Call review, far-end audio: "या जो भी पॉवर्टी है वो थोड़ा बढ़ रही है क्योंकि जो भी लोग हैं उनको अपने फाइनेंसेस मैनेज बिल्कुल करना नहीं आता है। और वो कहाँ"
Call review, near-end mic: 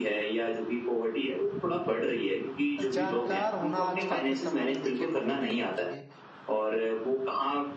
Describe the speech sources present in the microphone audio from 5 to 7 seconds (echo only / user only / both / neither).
both